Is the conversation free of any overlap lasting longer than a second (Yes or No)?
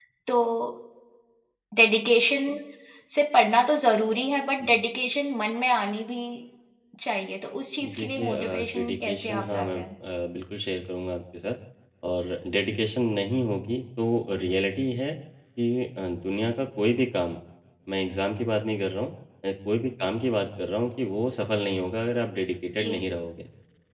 No